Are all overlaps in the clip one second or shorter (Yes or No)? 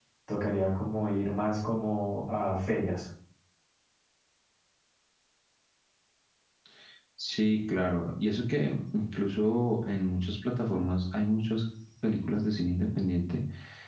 Yes